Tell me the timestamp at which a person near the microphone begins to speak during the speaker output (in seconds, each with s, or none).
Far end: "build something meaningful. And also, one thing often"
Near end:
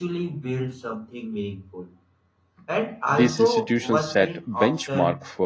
3.1 s